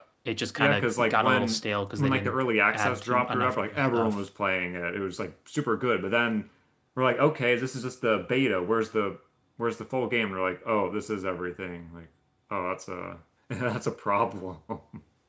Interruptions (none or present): present